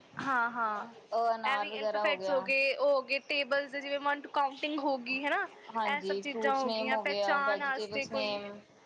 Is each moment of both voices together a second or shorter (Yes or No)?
No